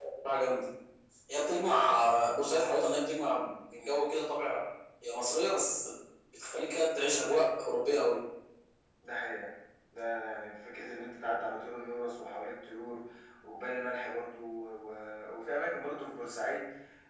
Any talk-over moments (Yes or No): No